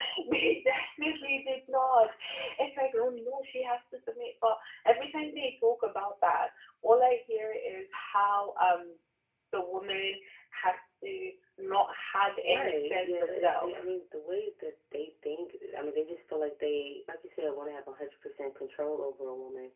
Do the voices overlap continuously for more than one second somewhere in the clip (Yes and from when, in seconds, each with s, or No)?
Yes, from 12.4 s